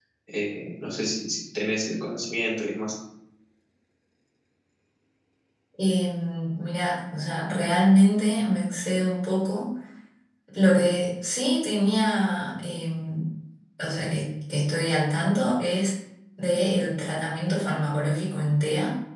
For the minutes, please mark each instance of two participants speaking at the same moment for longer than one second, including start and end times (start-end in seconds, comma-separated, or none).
none